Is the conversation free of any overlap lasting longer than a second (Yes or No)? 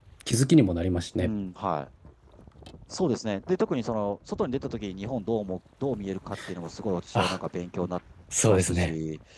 Yes